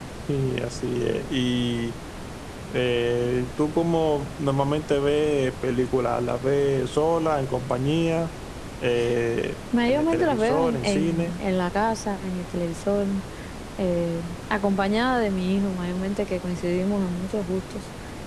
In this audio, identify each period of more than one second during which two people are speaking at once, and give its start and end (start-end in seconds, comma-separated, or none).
9.9-11.3